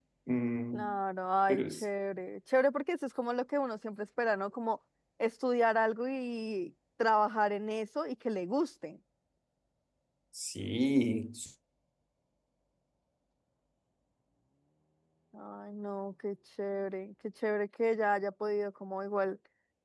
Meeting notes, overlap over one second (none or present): none